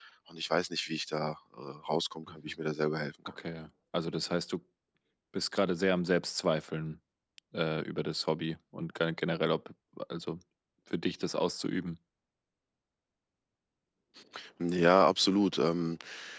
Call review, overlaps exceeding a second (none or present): none